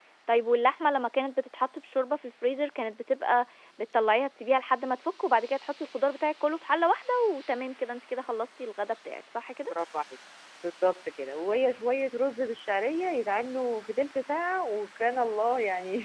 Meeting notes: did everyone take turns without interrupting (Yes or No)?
Yes